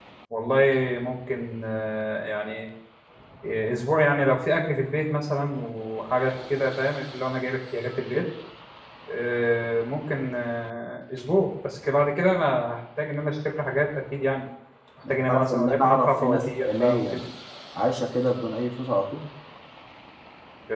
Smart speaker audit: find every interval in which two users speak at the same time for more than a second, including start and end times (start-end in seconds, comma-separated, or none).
15.1-17.2